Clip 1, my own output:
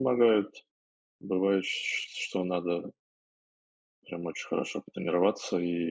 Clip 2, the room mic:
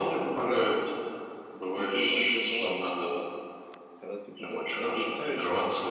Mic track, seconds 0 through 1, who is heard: both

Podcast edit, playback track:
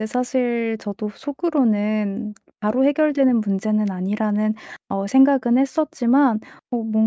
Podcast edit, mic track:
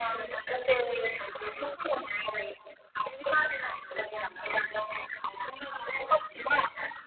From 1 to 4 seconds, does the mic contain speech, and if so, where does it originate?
echo only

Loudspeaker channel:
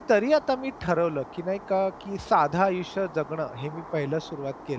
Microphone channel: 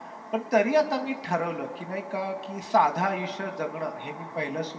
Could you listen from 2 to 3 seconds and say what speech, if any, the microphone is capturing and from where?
echo only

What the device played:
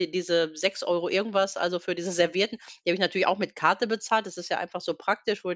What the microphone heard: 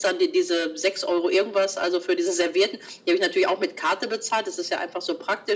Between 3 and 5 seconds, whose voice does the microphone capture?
echo only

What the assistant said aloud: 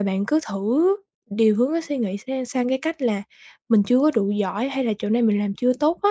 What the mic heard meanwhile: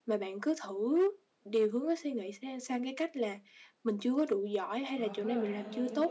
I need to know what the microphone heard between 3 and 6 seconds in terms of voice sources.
both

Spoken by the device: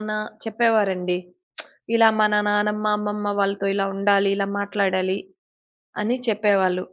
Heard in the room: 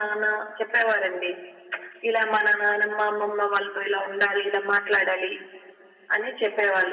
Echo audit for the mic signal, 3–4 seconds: echo only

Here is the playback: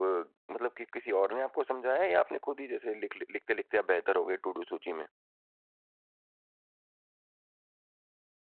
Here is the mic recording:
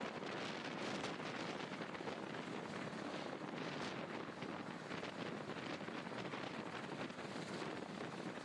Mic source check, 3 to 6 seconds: neither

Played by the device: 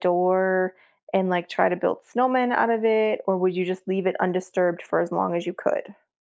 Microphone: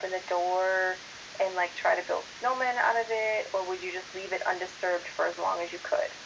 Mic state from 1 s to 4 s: echo only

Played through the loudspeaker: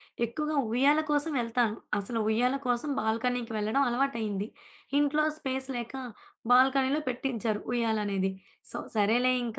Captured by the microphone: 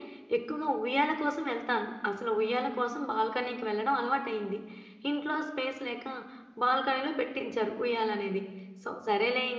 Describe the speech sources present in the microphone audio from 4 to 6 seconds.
echo only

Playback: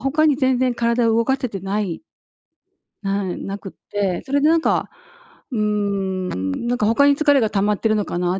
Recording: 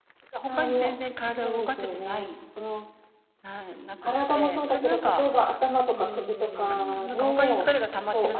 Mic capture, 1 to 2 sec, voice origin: both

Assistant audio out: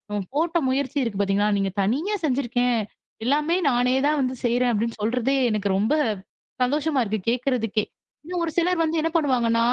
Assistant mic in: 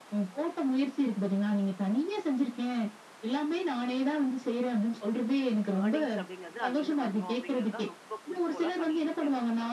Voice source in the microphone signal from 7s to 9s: both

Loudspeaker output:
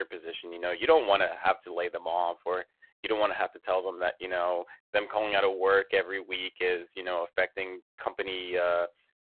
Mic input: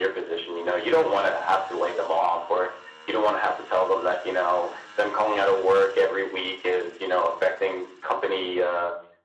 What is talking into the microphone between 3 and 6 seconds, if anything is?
echo only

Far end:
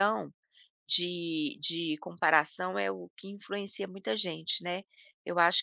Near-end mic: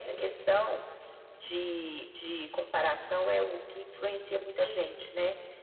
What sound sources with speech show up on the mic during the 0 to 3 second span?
echo only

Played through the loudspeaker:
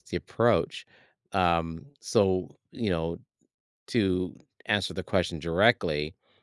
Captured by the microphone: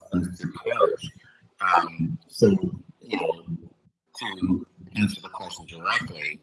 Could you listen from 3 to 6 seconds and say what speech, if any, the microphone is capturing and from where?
echo only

